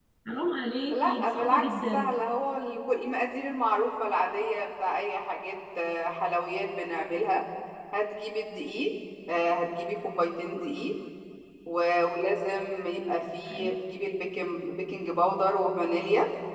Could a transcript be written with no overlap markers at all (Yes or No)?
No